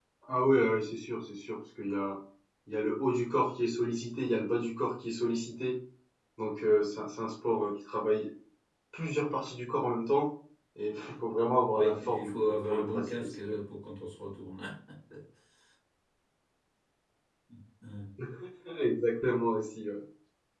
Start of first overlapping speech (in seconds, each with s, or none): 11.7 s